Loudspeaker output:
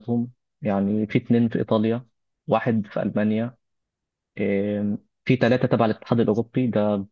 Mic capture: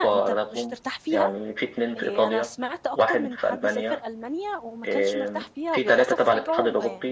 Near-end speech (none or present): present